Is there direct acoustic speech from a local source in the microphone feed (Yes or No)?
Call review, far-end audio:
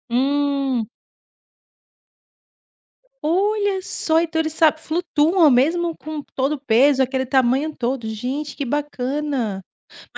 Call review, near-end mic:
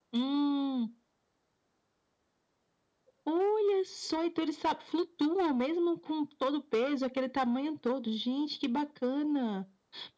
No